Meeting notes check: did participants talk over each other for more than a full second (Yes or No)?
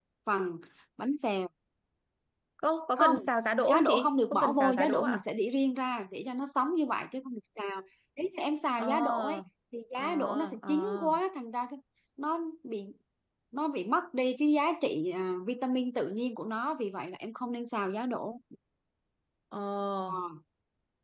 Yes